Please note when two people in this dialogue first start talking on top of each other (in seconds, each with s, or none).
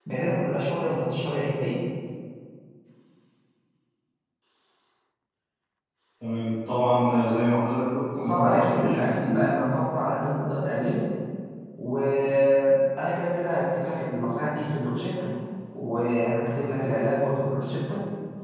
8.2 s